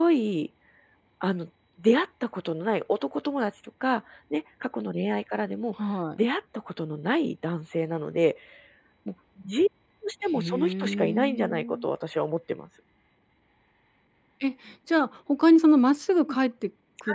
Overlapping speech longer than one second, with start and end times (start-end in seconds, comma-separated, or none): 10.3-11.9